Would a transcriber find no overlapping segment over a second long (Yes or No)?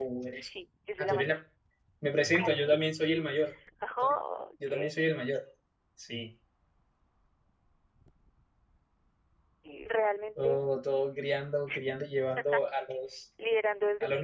Yes